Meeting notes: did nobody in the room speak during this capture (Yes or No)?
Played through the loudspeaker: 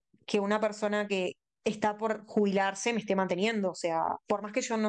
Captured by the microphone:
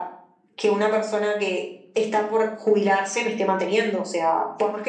Yes